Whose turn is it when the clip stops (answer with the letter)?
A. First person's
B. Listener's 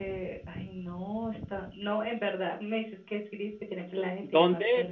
B